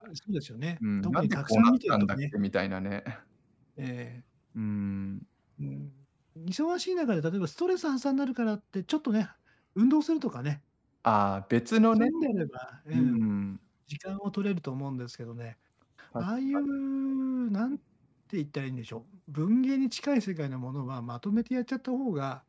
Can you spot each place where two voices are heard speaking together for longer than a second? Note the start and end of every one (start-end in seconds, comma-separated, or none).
1.0-2.3